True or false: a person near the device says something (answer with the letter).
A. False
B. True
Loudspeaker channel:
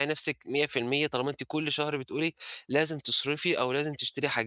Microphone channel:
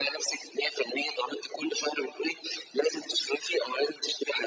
A